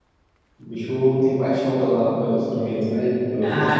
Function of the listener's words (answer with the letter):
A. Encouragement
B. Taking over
B